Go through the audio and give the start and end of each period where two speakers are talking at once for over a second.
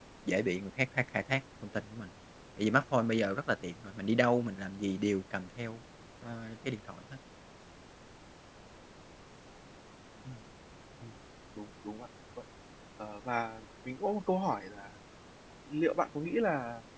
none

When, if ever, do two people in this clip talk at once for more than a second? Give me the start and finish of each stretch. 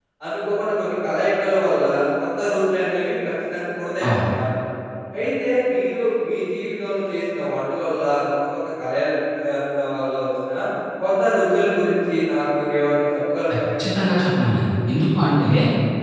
none

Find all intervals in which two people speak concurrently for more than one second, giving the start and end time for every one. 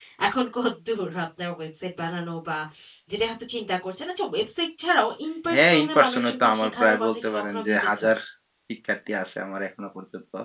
5.5-7.9

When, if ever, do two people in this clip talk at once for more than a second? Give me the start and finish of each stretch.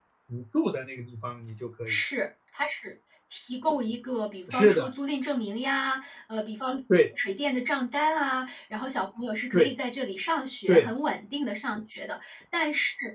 none

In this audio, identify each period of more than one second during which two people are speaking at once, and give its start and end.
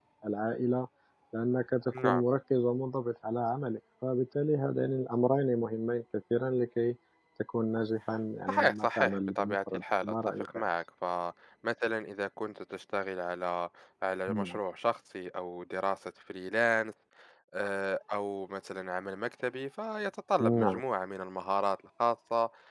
8.5-10.6

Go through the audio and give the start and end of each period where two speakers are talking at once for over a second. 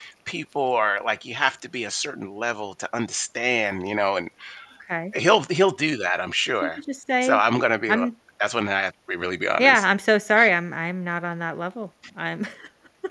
none

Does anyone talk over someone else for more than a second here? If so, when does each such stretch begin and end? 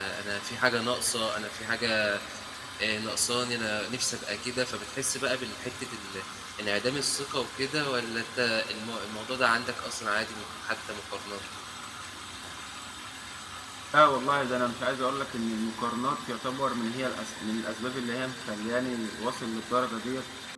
none

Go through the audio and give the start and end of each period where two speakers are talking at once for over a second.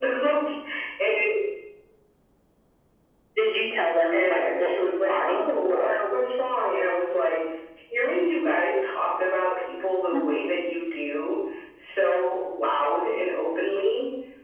4.1-6.0

